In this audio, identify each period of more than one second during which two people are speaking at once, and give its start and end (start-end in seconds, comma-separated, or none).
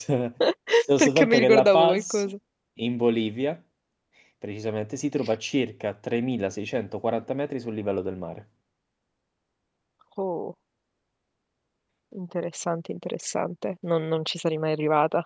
1.0-2.3